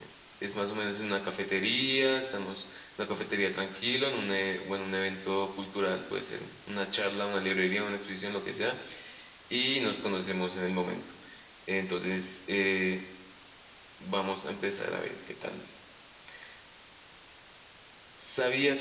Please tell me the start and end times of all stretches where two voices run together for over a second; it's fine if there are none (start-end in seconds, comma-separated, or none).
none